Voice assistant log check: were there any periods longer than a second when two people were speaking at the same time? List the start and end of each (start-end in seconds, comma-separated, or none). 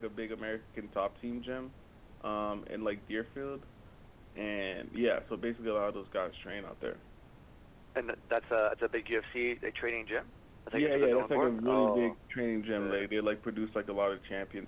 10.7-12.1